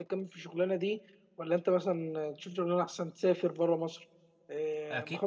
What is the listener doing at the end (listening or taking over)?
taking over